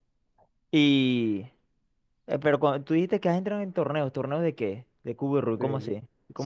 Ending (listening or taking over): taking over